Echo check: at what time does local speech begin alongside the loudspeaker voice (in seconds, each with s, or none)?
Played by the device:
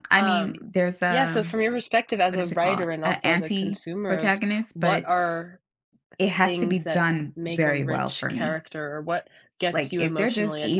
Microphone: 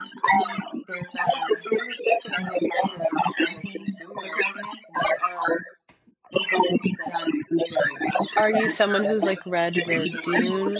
8.4 s